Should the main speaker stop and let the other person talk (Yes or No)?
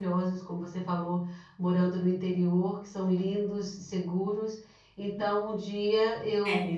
No